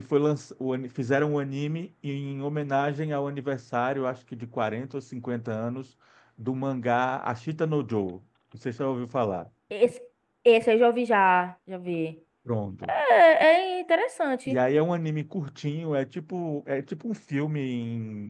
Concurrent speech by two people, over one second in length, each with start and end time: none

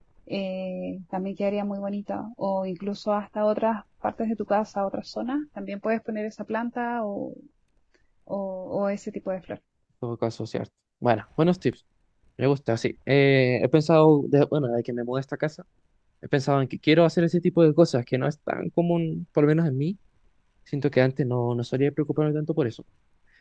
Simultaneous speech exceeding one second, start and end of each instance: none

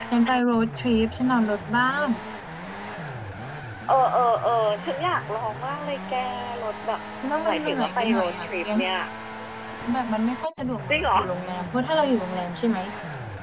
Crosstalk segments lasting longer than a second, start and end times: 7.5-8.8

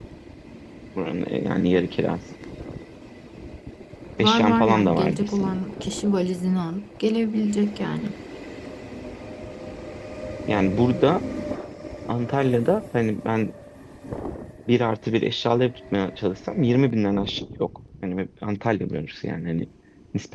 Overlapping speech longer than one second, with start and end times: 4.2-5.5

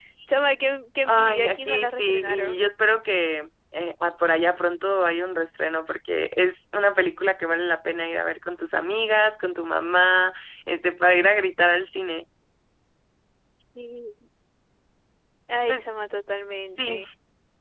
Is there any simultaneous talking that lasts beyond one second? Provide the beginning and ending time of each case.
1.1-2.7

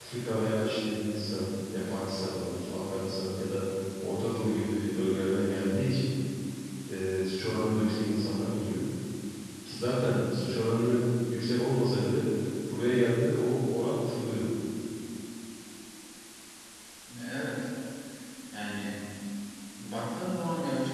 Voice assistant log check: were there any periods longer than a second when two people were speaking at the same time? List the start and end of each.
none

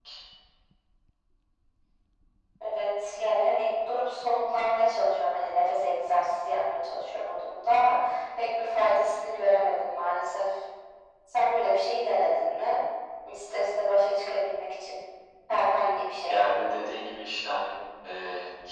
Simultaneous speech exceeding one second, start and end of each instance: none

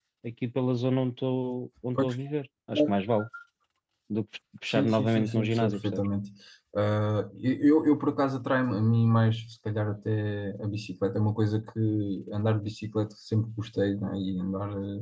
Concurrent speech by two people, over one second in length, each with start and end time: 4.7-6.1

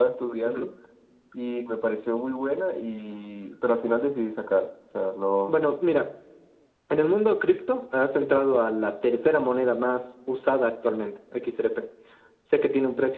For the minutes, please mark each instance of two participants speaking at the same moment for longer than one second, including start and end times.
none

